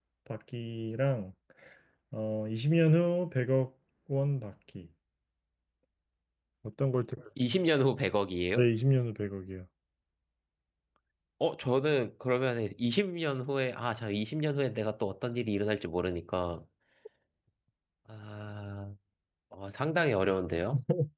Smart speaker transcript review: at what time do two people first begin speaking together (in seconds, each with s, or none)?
none